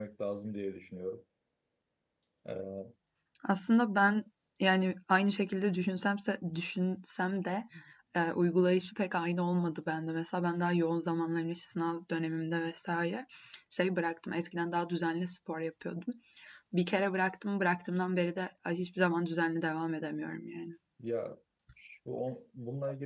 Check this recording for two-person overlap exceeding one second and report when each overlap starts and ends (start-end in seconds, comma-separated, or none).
none